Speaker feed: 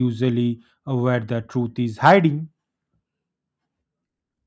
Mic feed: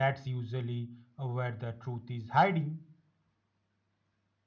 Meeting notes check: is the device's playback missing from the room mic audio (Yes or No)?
No